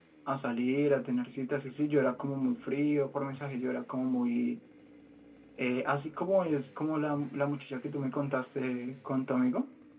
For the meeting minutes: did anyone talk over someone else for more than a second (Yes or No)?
No